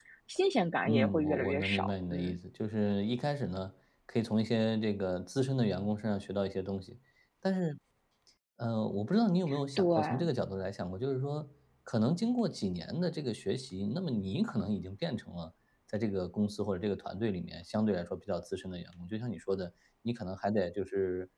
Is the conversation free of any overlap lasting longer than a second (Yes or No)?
No